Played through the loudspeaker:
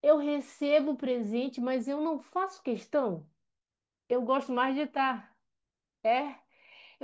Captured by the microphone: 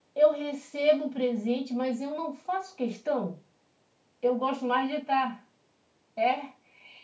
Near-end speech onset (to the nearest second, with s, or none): none